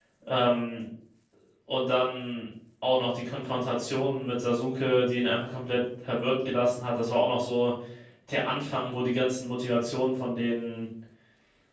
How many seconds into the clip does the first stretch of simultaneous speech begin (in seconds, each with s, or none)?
none